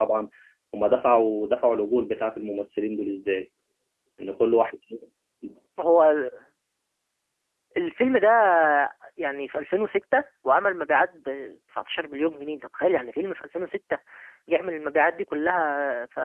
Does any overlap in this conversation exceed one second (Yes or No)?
No